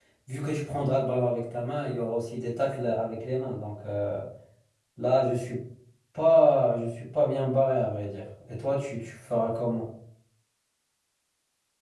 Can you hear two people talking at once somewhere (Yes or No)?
No